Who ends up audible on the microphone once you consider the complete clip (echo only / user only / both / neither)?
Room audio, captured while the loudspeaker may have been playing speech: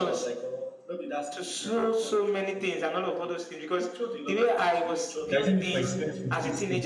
both